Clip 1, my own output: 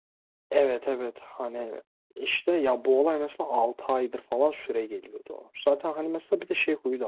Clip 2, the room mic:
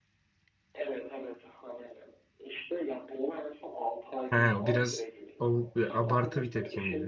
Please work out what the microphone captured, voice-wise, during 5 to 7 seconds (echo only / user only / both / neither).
both